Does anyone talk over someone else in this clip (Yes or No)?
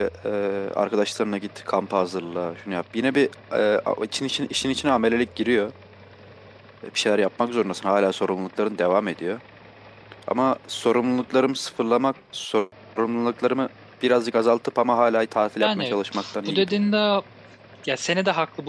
Yes